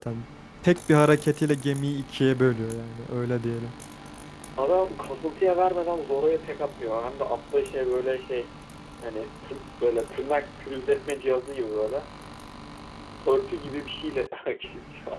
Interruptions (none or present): none